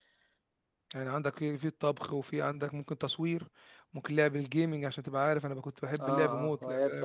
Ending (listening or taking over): taking over